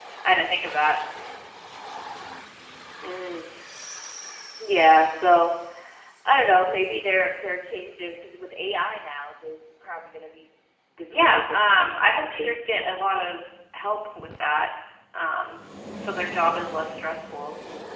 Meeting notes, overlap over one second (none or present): present